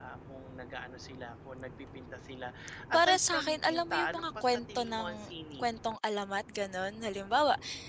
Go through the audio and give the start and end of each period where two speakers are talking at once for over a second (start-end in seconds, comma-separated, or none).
2.9-5.7